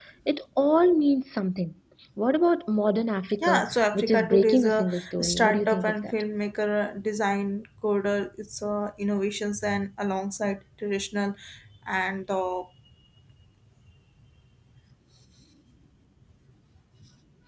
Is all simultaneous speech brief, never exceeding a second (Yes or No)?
No